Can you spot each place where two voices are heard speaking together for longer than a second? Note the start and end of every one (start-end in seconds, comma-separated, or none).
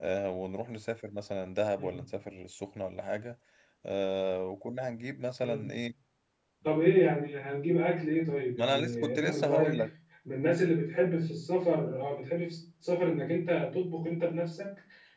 8.6-9.8